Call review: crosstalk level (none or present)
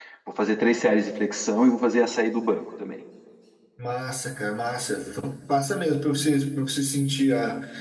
none